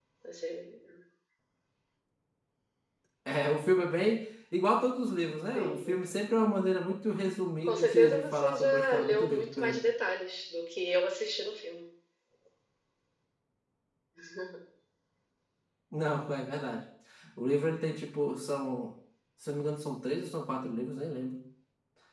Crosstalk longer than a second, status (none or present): present